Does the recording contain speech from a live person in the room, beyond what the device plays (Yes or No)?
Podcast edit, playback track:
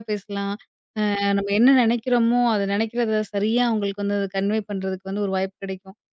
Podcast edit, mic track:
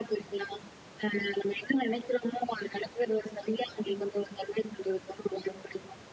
No